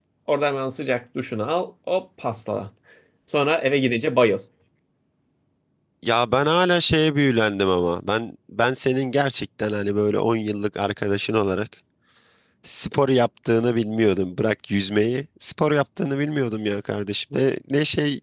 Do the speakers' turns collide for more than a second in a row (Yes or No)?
No